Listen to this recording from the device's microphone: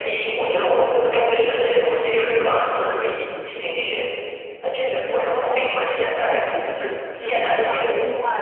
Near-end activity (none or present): present